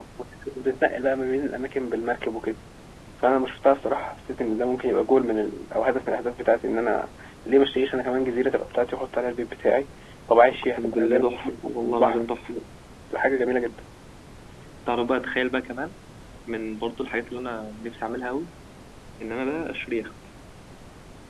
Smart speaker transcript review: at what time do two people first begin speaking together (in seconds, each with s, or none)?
10.5 s